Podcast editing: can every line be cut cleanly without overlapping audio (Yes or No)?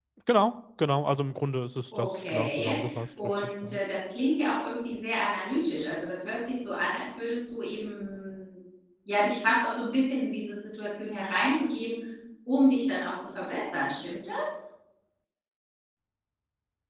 No